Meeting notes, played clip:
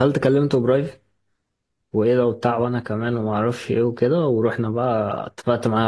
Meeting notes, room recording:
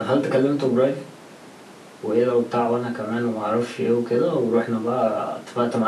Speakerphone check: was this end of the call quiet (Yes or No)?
Yes